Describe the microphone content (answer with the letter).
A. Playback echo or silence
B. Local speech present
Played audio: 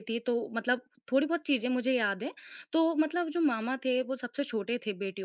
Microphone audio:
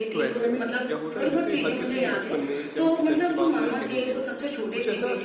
B